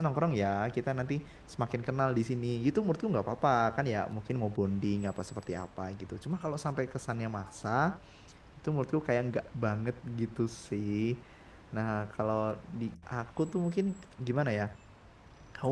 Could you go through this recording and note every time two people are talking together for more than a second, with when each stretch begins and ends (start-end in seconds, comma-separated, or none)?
none